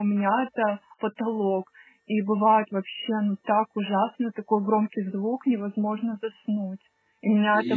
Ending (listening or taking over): listening